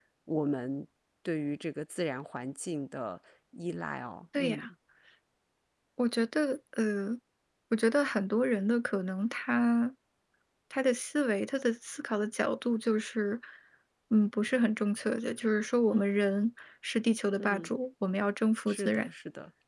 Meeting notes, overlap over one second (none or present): none